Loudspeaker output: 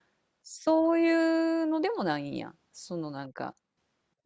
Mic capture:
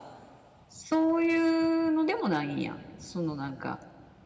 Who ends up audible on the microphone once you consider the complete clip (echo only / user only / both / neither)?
echo only